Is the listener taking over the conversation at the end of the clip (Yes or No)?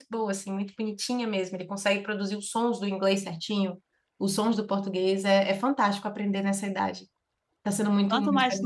Yes